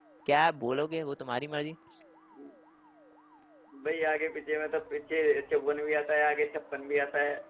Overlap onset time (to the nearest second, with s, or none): none